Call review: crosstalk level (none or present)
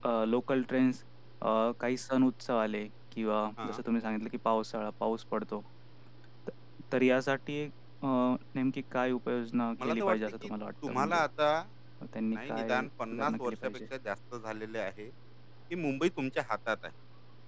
present